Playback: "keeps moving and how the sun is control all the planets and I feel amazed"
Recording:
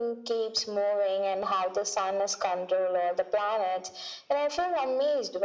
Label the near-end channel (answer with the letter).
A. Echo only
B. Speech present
A